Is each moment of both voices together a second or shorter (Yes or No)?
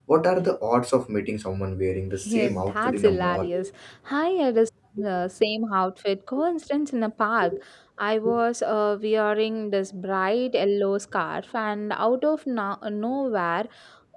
No